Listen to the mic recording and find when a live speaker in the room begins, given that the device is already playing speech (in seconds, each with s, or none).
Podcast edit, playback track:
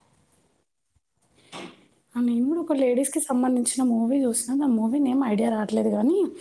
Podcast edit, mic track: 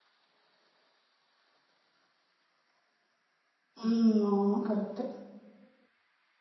3.8 s